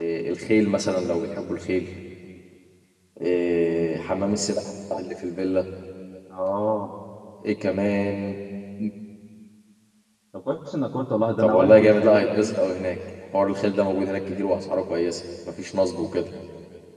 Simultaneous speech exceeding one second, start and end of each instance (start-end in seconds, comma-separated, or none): 11.4-12.6